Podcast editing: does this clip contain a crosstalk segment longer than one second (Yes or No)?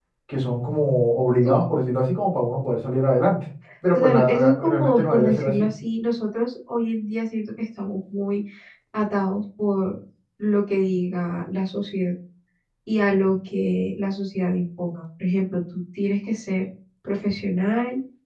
Yes